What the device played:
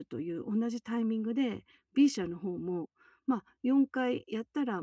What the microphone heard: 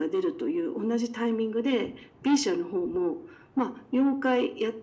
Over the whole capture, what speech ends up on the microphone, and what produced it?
echo only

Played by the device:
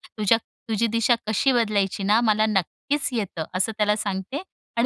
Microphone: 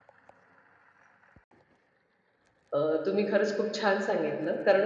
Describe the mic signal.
user only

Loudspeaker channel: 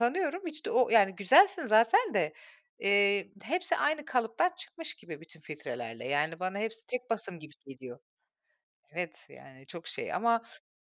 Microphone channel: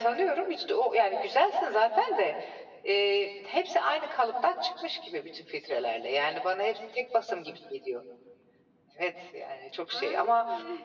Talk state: both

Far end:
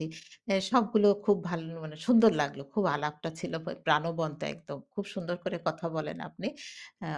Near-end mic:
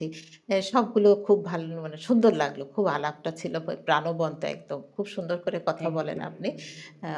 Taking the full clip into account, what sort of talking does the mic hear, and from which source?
both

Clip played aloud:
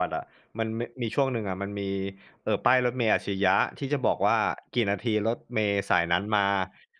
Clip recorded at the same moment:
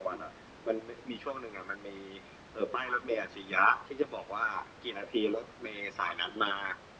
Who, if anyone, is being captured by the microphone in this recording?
echo only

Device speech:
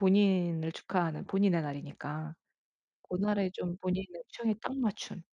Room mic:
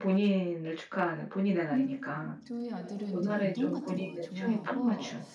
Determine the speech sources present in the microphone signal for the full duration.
both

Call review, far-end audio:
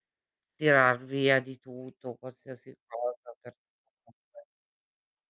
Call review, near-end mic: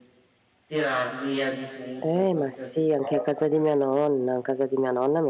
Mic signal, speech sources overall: both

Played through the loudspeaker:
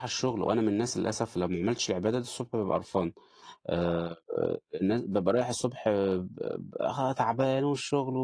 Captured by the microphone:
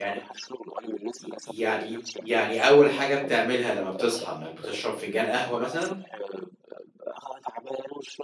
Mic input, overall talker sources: both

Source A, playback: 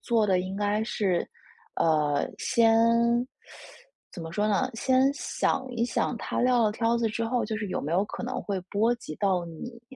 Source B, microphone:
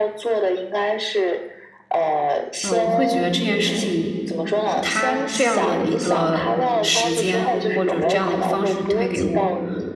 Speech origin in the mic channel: both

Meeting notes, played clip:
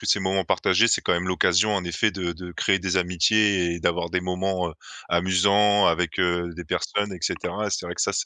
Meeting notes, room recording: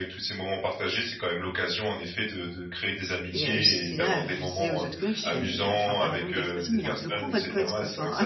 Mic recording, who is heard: both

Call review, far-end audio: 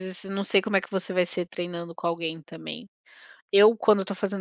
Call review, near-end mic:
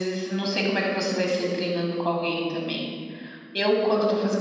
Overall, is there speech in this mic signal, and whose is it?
echo only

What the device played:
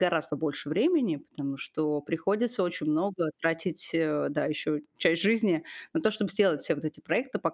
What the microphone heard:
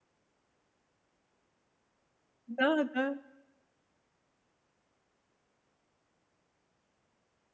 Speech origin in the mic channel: user only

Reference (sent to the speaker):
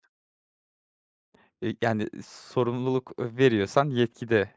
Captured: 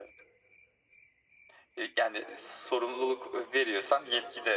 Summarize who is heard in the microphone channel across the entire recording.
echo only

